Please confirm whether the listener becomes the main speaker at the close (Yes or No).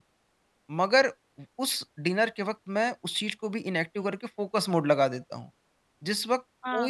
Yes